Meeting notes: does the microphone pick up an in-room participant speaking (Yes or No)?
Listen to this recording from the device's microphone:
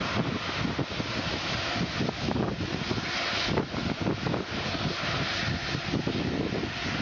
No